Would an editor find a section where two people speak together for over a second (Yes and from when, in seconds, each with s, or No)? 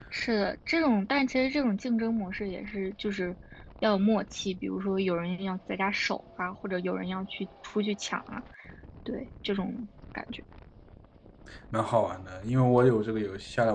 No